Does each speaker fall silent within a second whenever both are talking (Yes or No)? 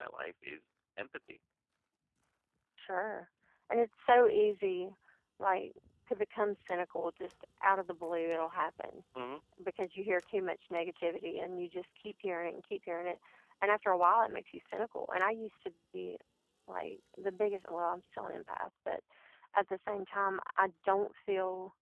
Yes